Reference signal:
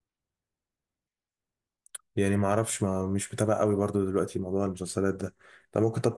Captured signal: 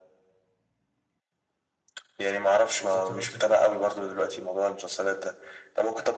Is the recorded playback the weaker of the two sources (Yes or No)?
No